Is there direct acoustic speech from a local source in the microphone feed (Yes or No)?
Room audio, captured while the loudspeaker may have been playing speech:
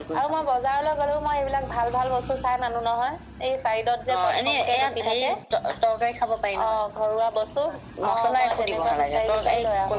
No